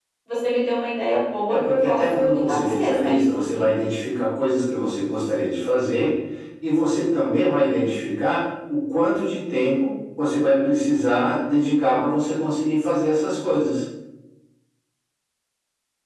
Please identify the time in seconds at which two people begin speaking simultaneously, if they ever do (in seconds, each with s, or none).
1.5 s